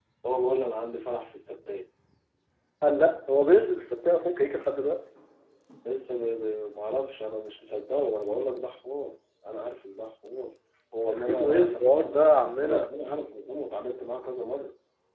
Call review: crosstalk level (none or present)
present